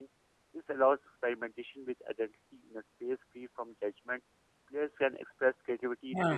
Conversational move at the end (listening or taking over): taking over